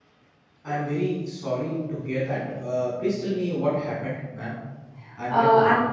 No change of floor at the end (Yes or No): No